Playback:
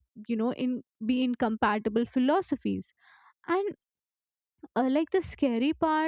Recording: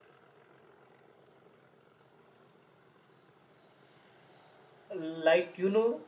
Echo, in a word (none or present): none